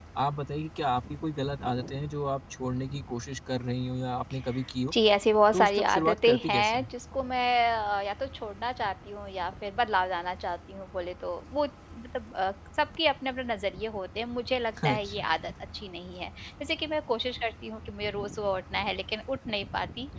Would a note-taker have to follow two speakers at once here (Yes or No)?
Yes